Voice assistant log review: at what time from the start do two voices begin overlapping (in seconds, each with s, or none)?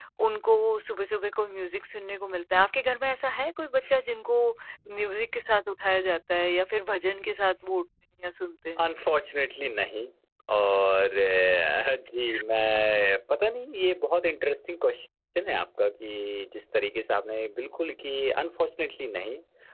none